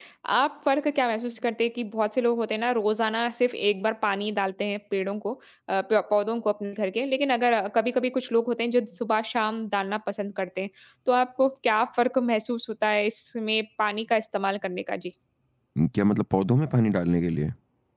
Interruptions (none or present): none